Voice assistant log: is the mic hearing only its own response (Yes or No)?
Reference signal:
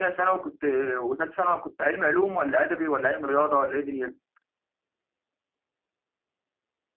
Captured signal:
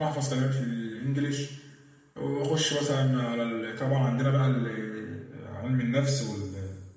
No